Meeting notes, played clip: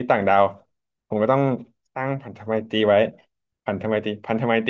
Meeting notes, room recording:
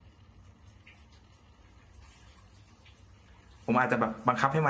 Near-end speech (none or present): present